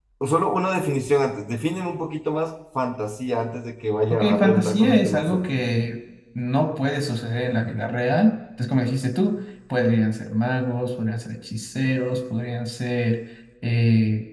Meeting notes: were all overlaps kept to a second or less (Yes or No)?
No